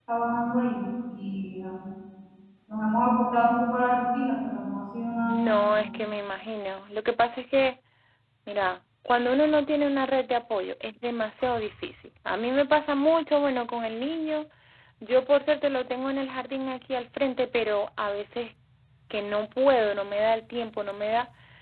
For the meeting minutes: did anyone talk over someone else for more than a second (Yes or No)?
No